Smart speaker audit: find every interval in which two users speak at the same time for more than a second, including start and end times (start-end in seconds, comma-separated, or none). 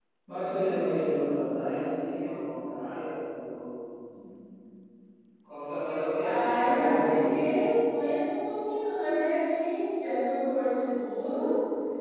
6.2-7.5